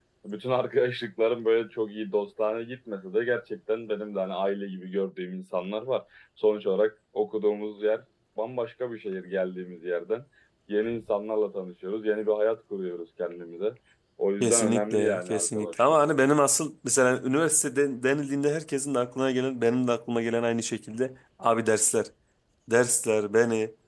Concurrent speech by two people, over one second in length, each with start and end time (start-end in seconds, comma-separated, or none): 14.4-16.1